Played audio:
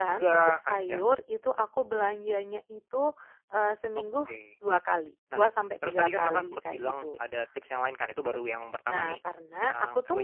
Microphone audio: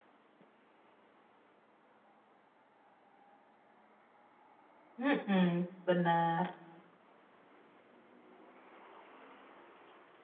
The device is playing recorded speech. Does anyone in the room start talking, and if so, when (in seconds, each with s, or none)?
5.0 s